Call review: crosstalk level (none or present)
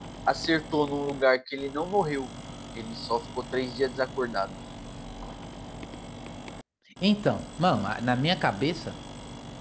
none